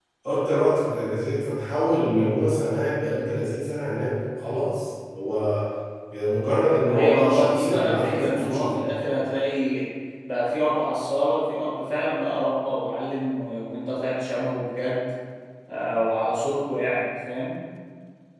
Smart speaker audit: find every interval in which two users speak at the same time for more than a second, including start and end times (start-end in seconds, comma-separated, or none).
6.9-8.8